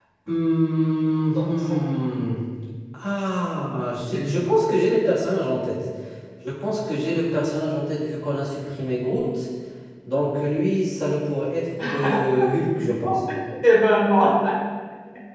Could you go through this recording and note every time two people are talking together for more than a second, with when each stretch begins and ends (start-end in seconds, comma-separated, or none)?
none